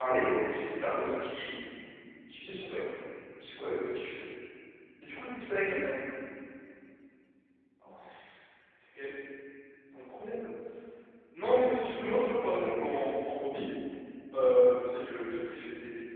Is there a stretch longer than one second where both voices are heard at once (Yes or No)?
No